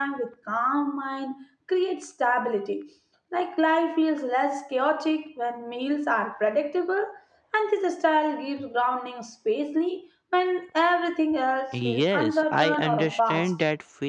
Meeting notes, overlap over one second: present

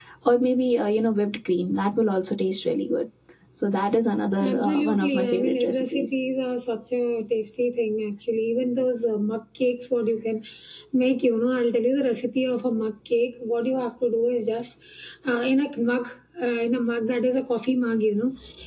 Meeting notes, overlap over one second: present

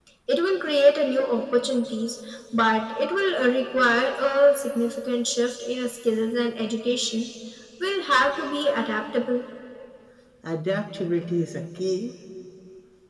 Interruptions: none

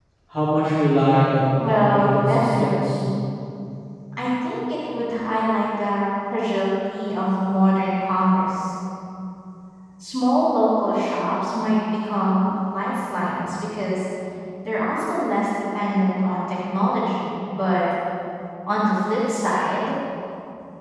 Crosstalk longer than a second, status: present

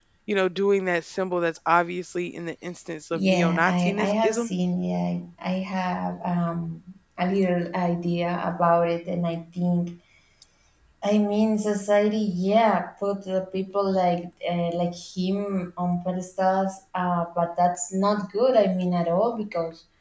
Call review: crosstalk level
present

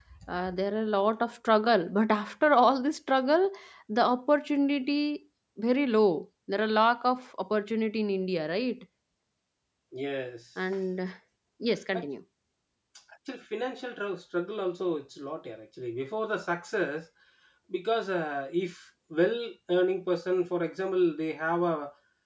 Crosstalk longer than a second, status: none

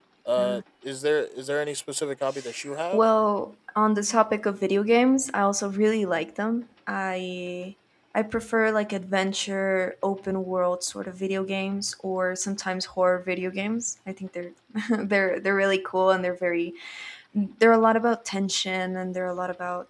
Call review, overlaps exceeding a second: none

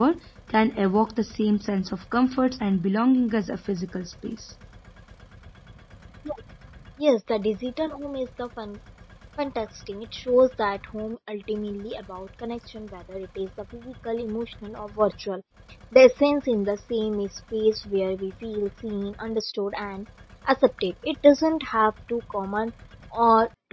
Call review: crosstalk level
none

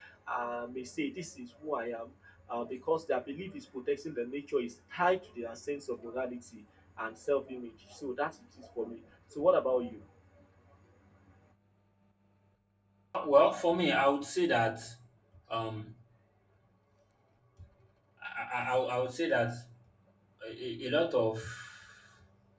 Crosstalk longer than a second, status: none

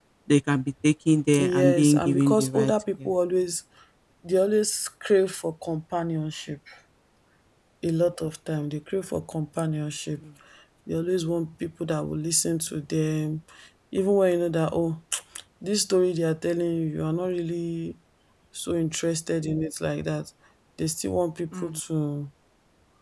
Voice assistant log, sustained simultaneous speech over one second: present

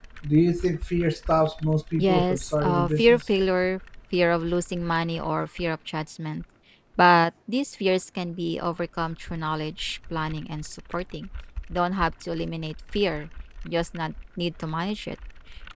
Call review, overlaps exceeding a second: present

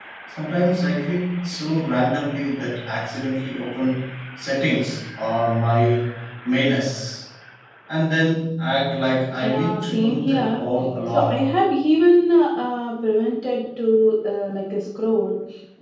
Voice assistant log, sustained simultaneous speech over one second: present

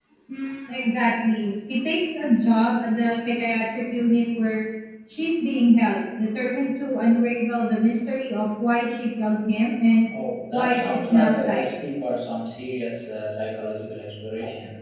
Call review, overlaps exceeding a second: present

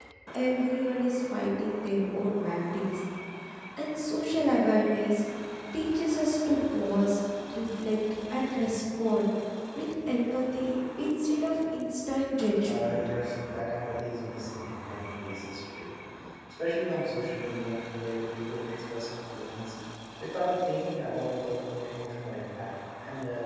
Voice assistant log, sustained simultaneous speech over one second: none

